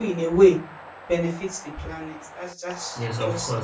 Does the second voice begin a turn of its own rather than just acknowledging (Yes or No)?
Yes